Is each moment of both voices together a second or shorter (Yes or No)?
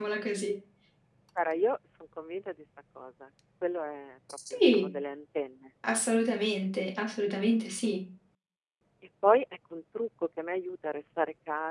Yes